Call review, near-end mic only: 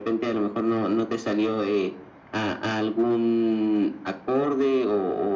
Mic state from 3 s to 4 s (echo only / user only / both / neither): echo only